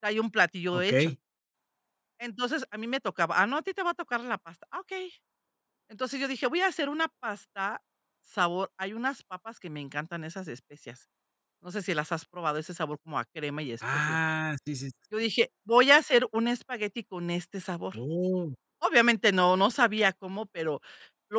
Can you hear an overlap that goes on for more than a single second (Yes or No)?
No